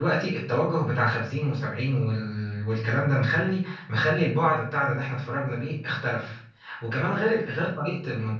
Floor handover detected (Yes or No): No